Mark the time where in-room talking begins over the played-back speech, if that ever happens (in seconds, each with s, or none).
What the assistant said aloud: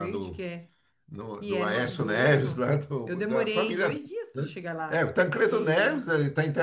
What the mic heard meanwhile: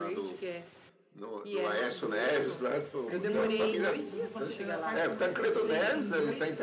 3.1 s